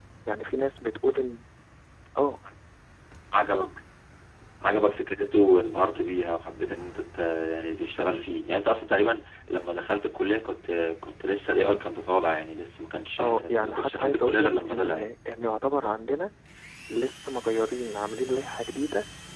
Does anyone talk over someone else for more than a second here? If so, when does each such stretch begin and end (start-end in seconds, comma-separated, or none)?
13.2-15.1